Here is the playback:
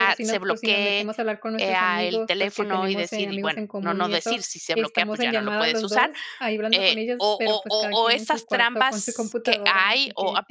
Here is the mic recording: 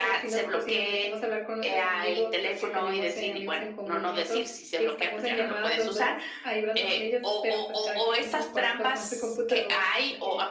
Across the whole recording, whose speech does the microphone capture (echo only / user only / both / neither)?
echo only